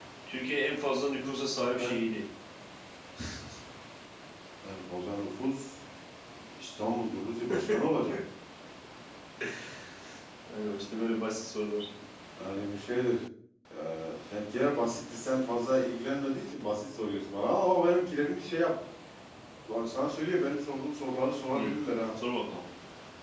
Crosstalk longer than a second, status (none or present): none